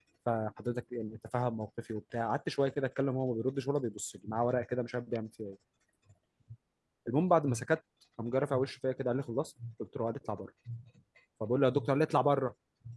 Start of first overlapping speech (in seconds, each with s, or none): none